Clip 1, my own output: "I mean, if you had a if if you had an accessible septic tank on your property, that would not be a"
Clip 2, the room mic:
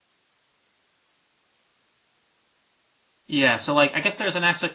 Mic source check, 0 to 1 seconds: neither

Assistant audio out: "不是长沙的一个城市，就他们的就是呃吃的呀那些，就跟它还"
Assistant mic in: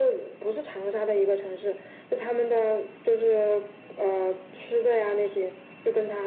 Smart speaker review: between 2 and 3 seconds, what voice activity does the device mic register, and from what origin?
echo only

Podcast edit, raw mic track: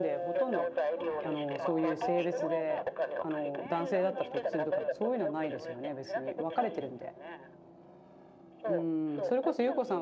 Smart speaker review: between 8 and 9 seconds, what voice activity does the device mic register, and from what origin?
both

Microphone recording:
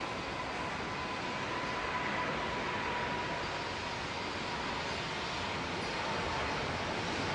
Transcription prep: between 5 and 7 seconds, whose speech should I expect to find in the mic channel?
neither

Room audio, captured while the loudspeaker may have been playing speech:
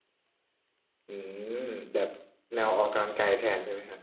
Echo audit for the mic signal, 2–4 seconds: user only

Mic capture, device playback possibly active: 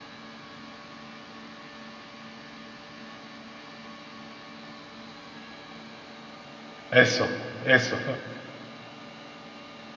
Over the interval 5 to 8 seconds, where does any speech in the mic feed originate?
user only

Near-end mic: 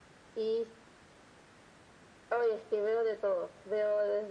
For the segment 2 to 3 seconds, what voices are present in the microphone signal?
echo only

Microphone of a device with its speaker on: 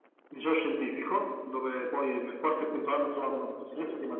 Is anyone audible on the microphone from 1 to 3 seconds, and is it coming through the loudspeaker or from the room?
echo only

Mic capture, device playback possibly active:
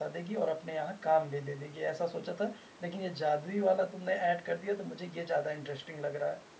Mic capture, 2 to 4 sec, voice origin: user only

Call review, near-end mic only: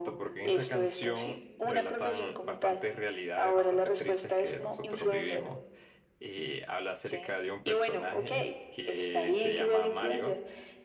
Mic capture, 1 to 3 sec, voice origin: both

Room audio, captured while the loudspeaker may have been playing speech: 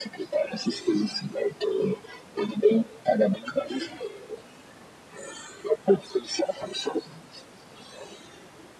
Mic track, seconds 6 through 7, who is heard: echo only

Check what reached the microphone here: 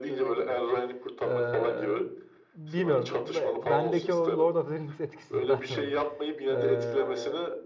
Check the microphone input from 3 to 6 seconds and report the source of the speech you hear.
both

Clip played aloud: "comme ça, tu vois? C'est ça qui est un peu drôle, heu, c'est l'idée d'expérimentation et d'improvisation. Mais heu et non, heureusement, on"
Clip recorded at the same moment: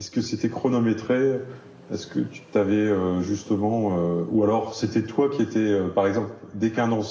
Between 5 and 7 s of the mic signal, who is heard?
user only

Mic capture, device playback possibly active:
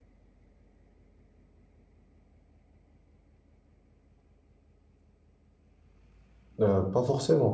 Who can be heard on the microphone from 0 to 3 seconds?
neither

